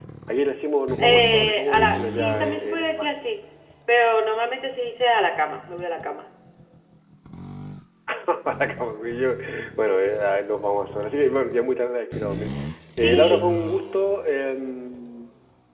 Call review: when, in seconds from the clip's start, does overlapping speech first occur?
1 s

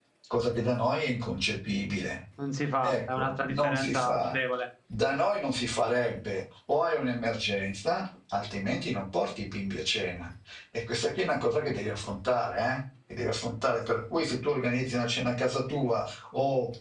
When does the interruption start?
3 s

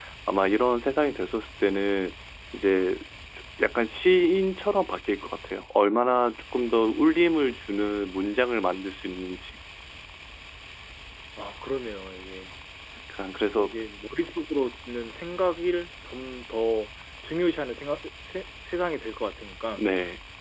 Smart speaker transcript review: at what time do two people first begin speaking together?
none

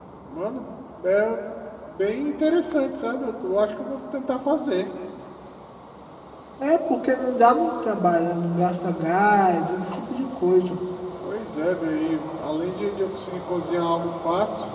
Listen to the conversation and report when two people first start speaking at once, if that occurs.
none

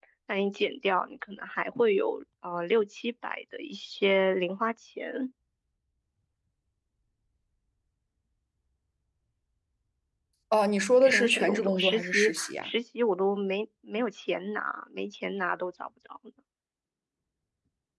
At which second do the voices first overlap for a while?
11 s

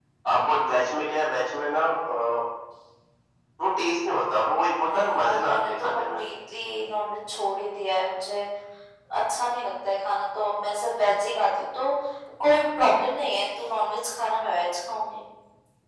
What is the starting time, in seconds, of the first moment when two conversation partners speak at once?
5 s

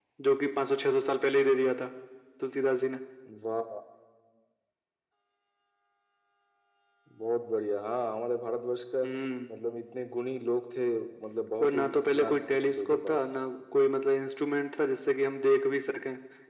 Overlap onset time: 12 s

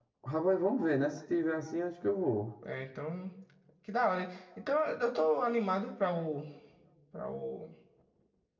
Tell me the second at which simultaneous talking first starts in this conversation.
none

